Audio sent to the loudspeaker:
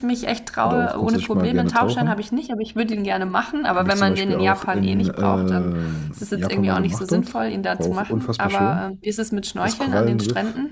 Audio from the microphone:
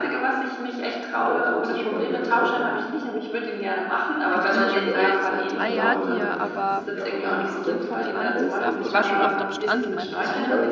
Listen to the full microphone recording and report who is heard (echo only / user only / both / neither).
both